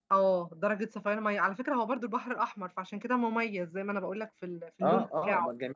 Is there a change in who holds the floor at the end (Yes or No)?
Yes